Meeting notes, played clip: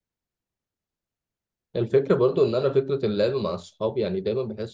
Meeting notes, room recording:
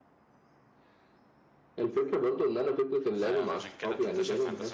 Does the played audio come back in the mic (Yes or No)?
Yes